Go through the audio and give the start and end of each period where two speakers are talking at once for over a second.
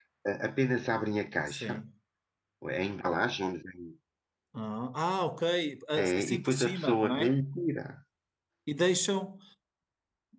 6.0-7.3

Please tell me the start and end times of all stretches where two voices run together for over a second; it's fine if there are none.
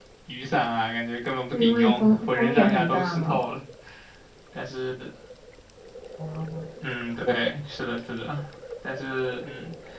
1.5-3.4

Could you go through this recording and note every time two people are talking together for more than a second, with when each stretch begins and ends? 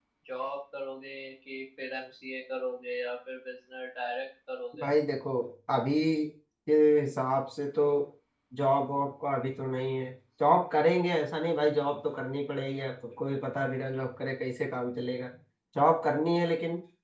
none

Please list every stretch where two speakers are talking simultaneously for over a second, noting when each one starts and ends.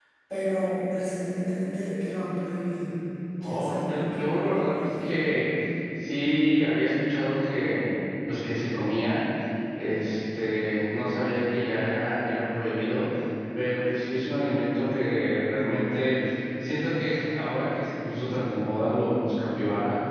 3.4-5.1

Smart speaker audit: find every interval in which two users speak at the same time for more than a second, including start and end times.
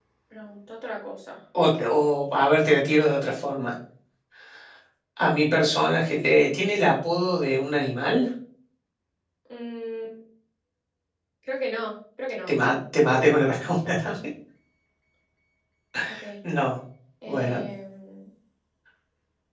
none

